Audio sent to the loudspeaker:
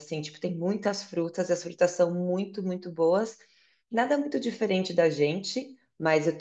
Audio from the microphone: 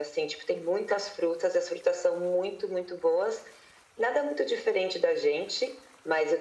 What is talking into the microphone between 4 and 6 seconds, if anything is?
echo only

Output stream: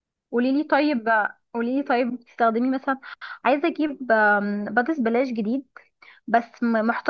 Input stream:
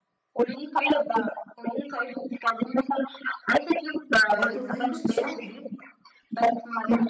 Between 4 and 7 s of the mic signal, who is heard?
both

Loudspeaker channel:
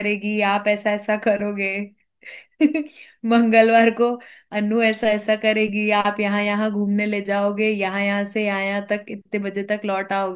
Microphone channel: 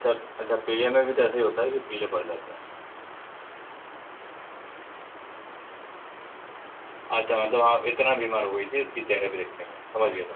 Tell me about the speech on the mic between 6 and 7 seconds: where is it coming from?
neither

